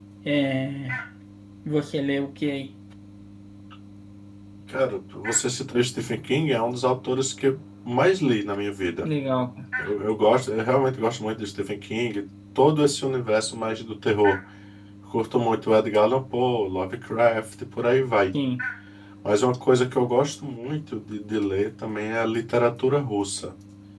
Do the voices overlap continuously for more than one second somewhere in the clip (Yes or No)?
No